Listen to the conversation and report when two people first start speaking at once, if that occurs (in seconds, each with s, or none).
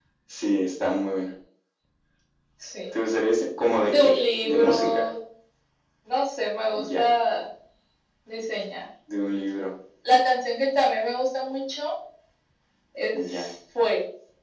3.8 s